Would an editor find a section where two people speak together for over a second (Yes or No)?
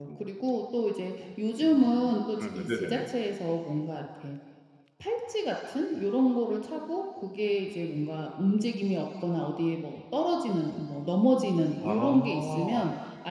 Yes